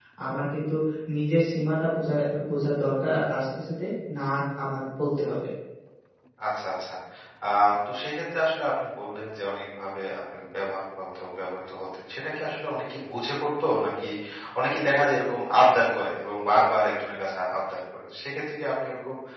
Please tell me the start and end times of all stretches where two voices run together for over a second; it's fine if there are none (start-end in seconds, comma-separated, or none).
none